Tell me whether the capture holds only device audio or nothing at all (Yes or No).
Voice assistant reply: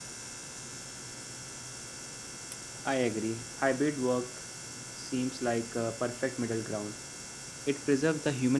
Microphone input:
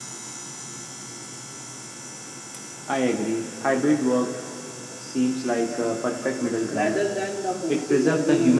No